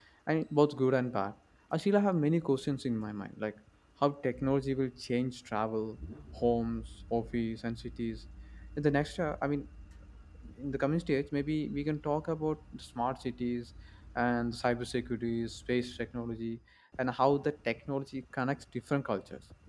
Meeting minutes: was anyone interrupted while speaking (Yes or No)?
No